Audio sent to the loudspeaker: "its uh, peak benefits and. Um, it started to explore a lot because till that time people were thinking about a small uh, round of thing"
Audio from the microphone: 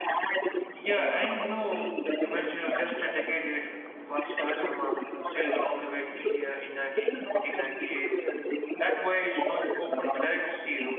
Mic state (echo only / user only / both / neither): both